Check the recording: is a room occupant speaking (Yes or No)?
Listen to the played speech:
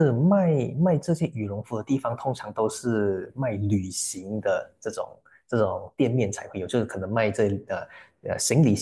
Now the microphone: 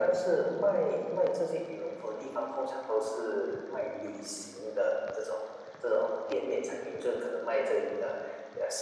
No